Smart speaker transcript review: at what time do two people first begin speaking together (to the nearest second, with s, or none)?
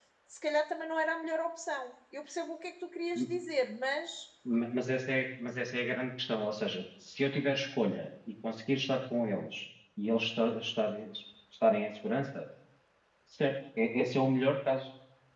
none